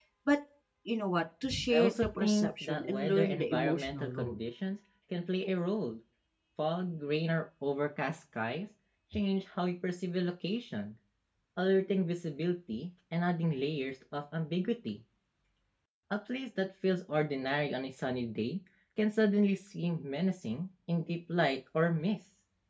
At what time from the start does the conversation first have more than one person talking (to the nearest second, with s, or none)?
2 s